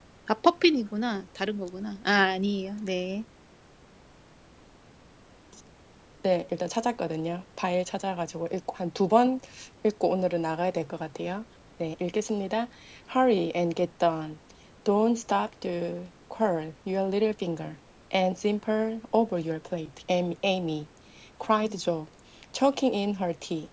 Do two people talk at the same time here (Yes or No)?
No